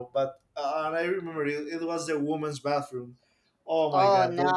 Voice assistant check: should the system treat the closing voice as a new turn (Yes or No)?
Yes